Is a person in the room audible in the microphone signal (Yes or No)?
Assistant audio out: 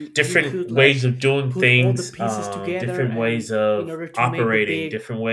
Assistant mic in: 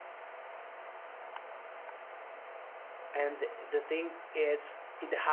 Yes